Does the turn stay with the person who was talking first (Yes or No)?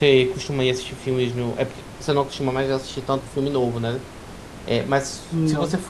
Yes